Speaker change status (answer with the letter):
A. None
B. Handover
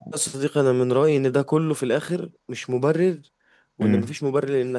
A